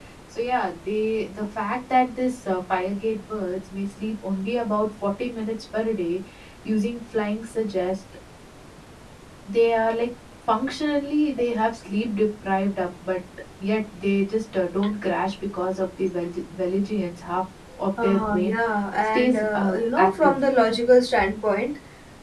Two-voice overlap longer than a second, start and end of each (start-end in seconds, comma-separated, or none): 19.1-20.4